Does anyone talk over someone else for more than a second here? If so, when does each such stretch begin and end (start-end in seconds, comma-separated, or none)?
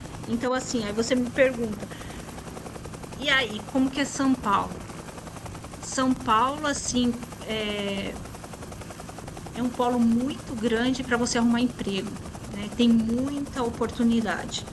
none